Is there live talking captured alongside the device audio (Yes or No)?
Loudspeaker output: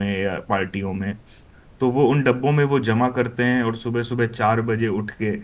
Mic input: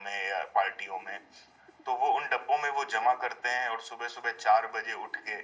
No